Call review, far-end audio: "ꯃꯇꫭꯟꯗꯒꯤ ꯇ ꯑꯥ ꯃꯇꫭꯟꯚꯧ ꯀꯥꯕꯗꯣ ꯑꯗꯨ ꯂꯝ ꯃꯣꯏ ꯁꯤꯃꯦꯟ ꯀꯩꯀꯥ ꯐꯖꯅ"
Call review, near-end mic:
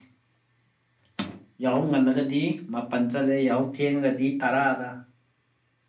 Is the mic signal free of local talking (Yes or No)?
No